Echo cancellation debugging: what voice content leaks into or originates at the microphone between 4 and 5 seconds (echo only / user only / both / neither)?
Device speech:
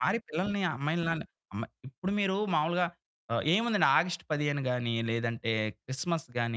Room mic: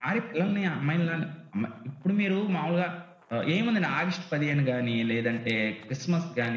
echo only